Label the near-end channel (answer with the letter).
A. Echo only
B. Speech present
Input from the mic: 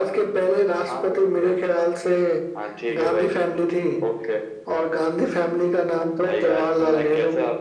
A